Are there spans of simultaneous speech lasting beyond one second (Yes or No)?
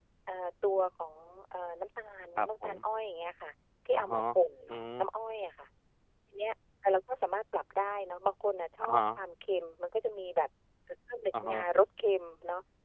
No